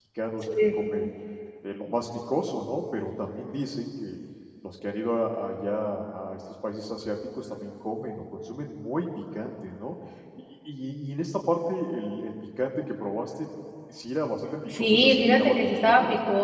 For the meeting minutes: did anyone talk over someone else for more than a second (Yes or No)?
Yes